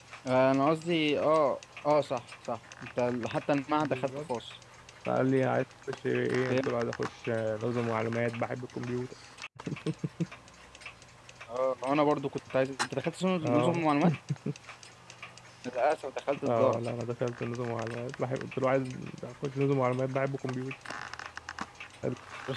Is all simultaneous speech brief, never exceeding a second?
Yes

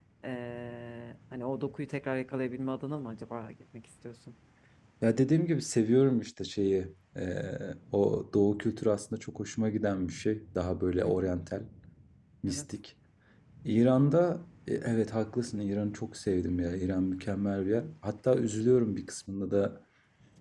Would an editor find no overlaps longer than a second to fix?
Yes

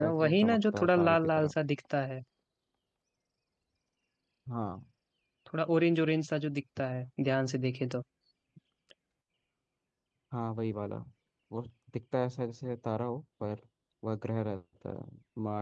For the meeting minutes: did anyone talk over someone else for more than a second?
Yes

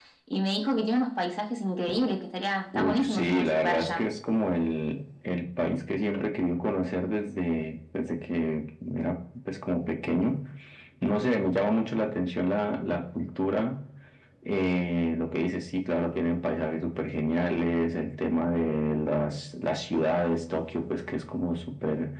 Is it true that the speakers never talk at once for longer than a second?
No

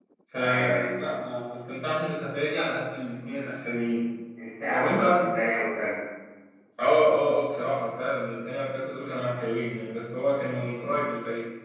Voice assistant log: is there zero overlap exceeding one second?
Yes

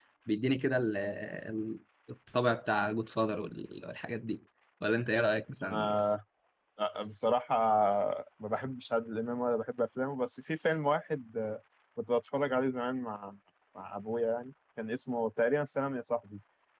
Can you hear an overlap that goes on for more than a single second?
No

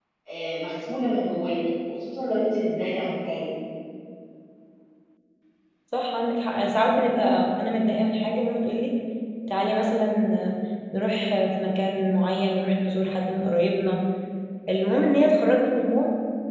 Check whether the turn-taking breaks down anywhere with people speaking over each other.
No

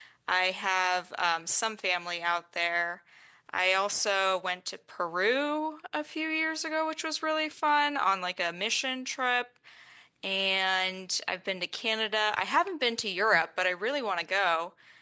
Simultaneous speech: No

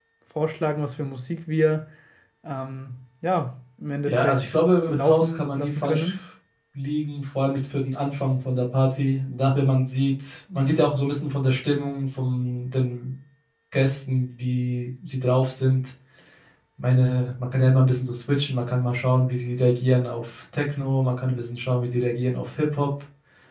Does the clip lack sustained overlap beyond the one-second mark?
No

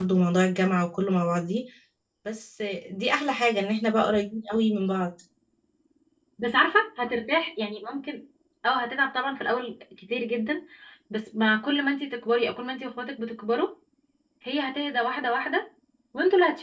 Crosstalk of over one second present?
No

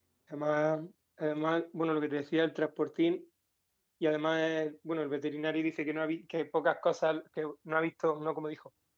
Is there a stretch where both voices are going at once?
No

